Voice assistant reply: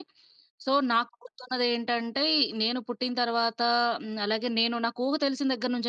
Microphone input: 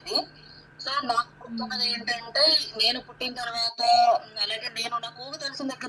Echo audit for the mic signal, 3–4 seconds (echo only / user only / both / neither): echo only